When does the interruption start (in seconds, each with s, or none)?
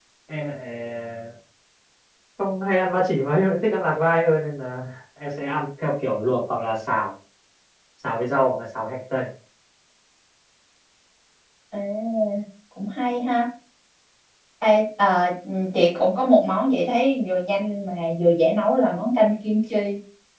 none